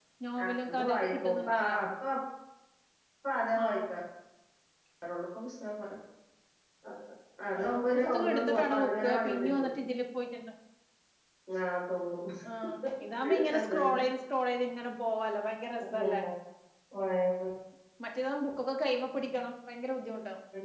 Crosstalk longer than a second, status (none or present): present